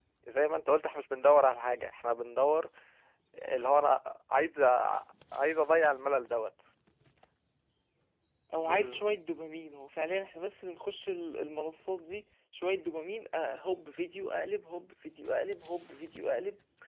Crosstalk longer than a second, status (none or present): none